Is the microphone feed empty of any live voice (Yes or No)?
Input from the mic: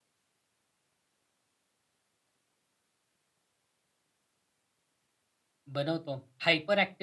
No